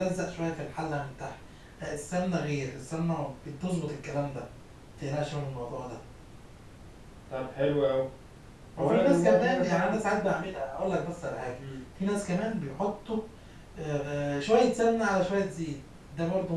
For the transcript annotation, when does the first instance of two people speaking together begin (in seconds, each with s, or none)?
8.8 s